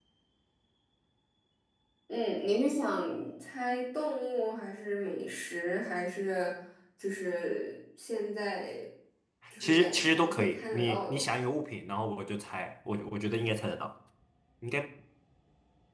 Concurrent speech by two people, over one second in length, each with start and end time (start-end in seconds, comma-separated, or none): 9.6-11.3